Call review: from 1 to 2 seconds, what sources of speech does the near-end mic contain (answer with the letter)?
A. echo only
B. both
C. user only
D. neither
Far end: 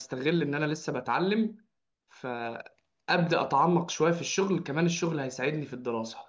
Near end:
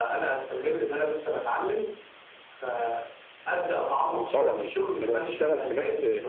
A